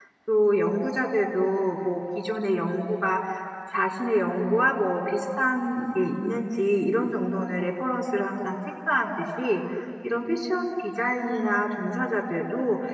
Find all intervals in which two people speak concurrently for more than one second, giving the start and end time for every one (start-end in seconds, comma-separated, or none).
none